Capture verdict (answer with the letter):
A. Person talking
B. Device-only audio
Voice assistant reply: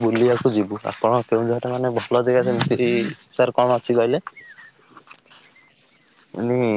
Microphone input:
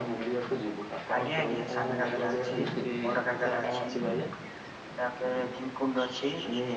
A